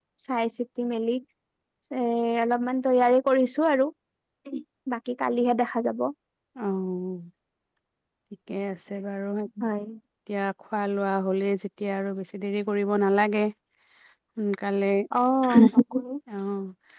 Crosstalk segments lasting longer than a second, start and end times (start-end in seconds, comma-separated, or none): none